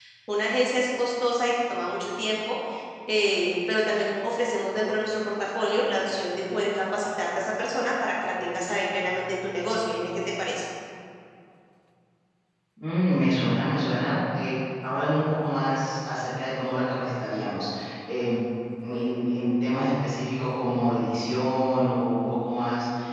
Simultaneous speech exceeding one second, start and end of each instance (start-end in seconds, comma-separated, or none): none